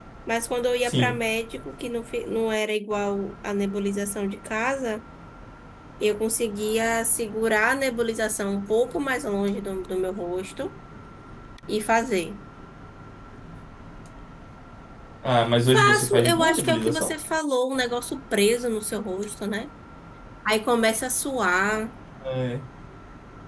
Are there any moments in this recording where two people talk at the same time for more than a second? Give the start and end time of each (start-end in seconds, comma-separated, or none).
15.6-17.1